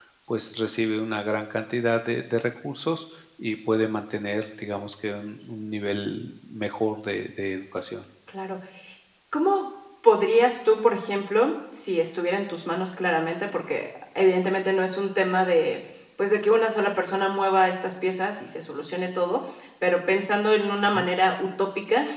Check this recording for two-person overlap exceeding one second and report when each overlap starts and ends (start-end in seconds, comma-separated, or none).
none